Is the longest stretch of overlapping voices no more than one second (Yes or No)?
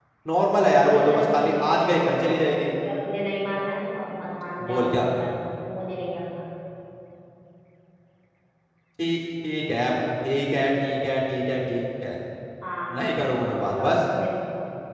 No